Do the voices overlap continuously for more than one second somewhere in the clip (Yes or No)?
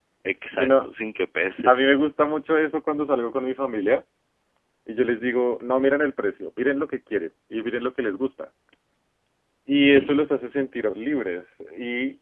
No